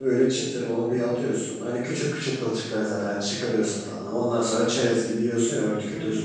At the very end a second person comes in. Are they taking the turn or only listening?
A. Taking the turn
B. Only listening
A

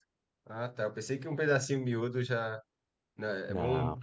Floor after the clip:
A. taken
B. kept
B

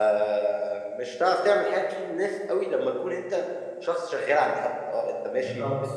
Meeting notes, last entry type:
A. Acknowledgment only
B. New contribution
A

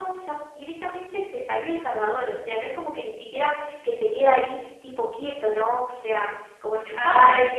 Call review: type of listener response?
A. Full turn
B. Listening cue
A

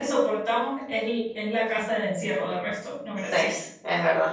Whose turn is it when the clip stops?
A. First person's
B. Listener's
B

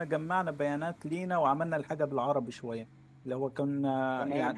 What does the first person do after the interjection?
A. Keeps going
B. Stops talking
B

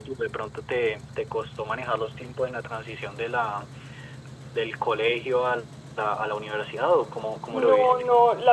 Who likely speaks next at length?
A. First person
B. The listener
B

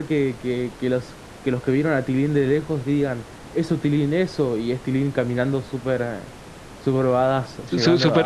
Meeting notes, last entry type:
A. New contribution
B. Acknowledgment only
A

